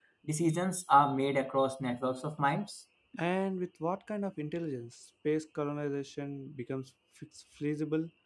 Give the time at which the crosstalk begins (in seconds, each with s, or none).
none